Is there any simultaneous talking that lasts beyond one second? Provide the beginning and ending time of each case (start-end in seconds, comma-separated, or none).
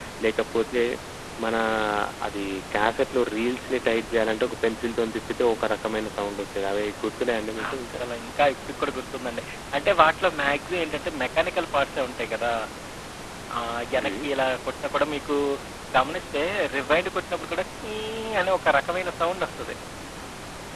none